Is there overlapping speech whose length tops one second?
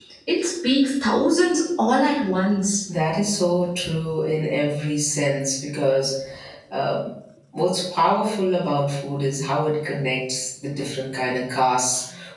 No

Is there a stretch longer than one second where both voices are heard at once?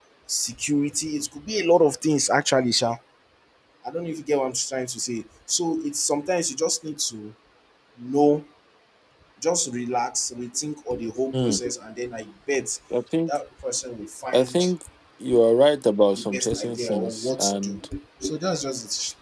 Yes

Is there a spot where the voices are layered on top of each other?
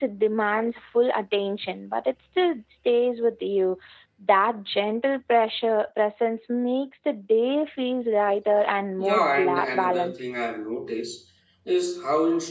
Yes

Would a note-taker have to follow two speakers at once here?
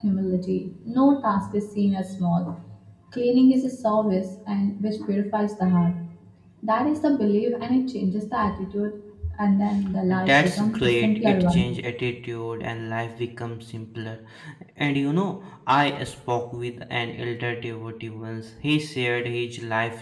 Yes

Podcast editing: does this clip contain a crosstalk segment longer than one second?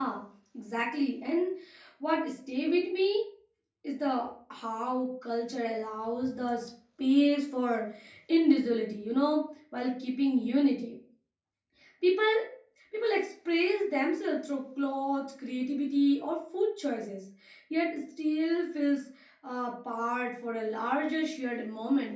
No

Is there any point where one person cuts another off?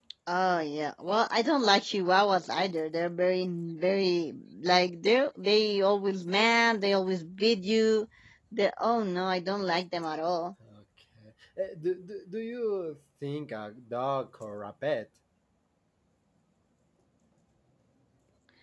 No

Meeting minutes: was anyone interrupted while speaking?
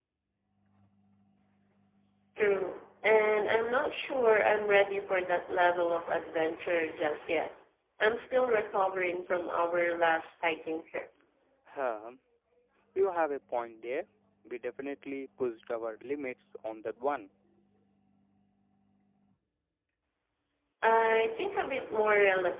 No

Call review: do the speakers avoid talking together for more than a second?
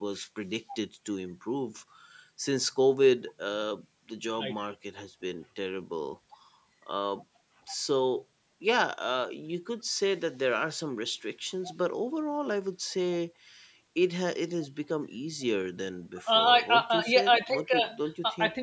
No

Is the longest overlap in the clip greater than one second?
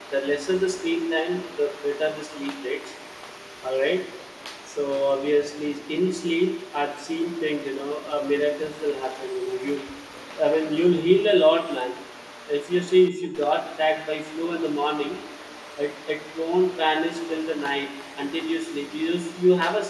No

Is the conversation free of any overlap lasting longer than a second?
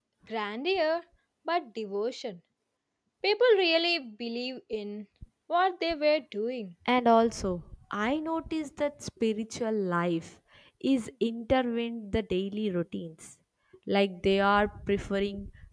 Yes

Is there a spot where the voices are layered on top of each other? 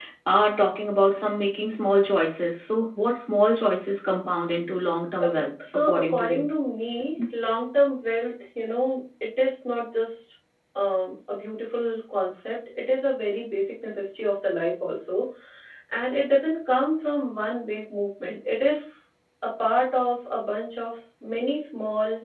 Yes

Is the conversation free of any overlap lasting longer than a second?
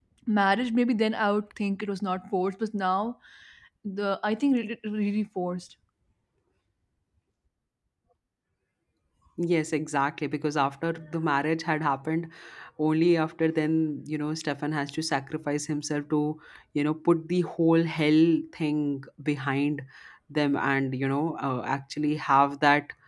Yes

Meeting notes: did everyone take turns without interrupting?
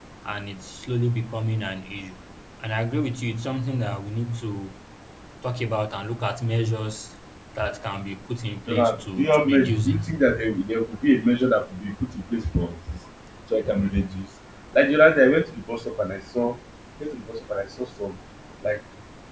No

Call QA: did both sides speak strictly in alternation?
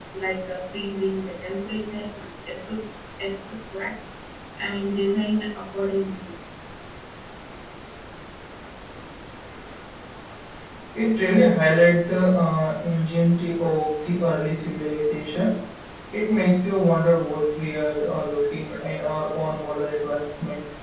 Yes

